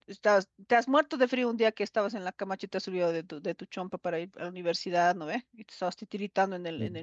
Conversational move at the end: listening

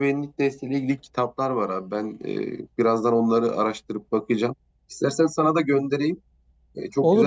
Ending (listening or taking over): taking over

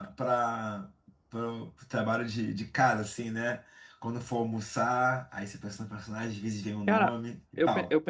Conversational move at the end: taking over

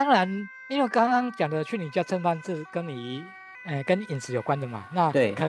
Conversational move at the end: listening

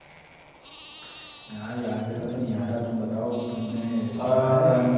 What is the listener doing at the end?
taking over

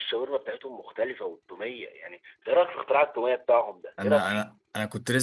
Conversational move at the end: taking over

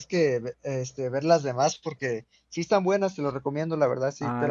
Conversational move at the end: listening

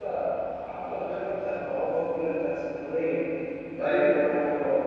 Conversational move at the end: listening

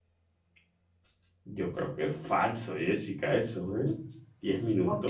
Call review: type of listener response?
taking over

